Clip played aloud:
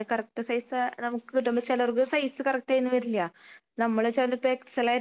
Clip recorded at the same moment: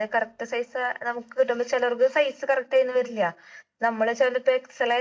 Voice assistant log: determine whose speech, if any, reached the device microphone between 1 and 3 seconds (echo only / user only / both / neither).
echo only